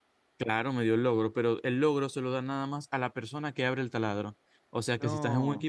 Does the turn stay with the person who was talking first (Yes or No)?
Yes